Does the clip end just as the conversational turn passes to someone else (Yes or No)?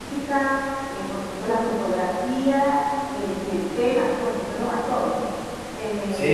Yes